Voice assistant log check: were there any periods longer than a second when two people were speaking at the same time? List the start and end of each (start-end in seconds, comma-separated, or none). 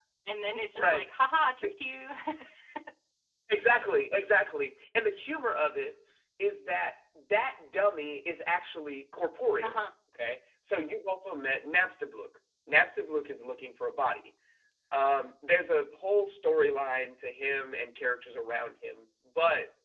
none